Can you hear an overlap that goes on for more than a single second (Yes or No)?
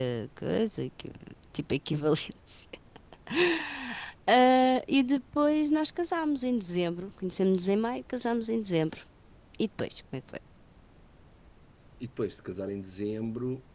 No